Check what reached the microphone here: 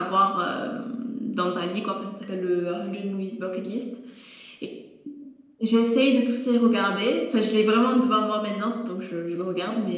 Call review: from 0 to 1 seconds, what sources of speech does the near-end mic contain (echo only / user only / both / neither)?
echo only